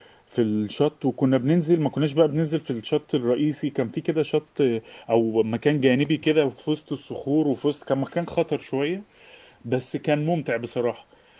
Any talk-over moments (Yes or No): No